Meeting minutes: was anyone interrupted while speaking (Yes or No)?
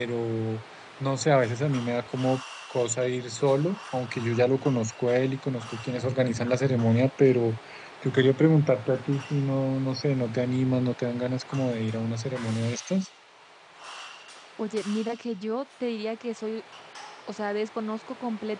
No